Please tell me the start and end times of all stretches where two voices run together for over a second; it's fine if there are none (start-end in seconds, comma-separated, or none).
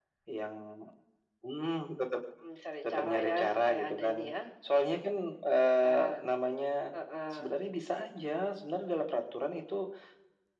2.9-4.2